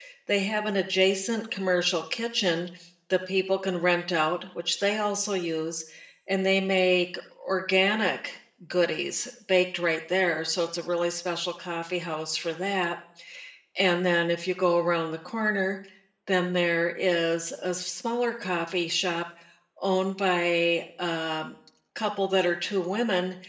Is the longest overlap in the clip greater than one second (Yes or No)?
No